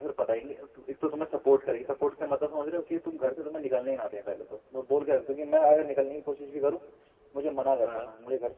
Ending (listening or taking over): listening